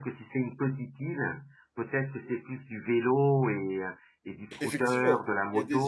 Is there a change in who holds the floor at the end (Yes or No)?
Yes